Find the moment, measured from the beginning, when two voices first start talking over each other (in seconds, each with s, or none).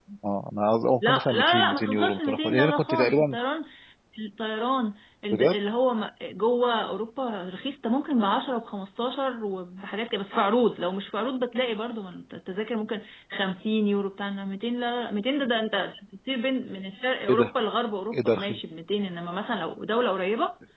1.1 s